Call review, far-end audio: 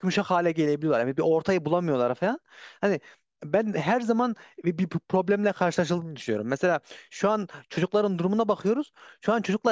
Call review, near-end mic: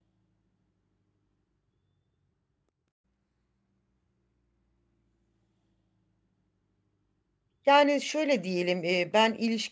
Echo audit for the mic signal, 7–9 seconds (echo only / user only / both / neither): user only